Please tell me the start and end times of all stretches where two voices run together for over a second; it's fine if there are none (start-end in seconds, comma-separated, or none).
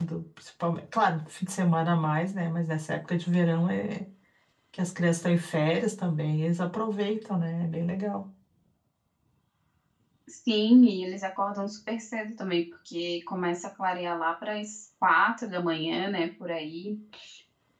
none